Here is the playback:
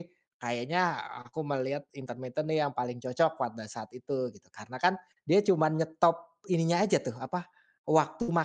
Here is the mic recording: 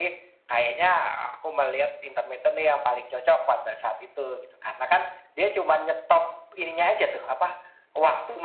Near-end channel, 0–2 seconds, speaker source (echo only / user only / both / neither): echo only